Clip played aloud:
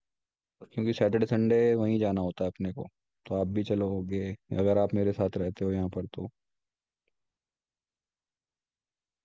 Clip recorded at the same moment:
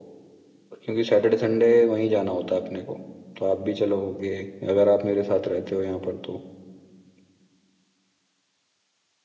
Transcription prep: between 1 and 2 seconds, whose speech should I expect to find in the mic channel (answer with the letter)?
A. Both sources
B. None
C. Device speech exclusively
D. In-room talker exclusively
C